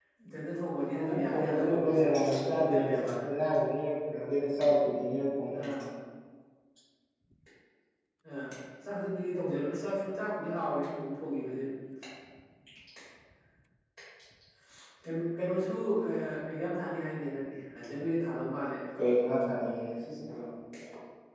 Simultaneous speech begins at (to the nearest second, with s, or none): 1 s